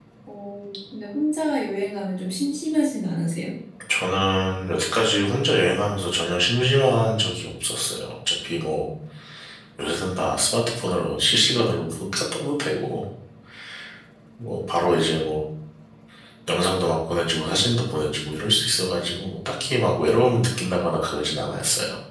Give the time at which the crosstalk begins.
none

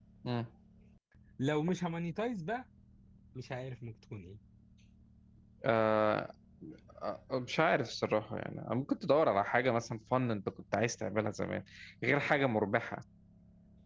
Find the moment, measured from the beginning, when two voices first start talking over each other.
none

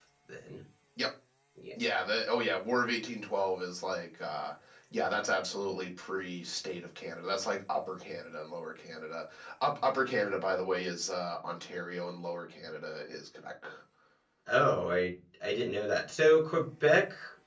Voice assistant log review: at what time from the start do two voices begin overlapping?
none

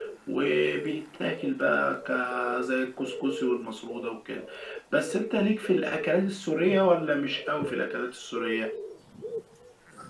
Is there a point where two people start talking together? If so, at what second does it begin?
none

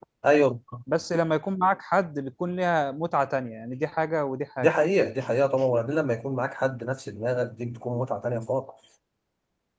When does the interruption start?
none

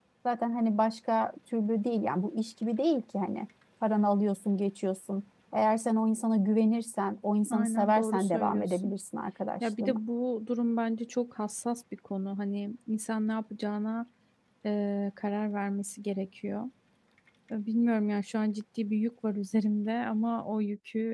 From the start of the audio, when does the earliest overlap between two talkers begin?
7.5 s

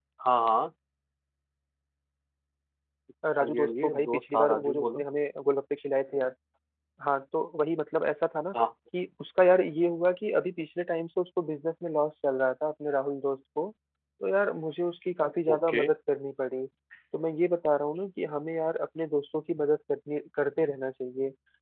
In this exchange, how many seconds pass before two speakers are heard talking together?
3.4 s

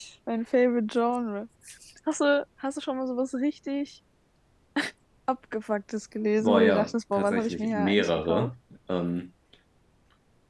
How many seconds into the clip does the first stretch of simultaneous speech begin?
6.4 s

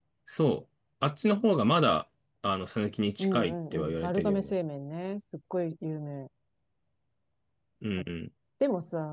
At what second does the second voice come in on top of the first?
3.2 s

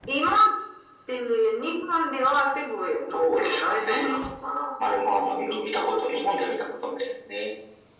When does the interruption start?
3.1 s

